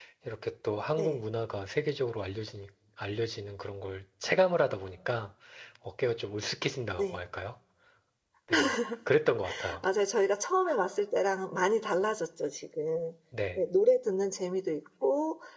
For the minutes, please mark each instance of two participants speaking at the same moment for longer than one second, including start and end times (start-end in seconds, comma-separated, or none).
none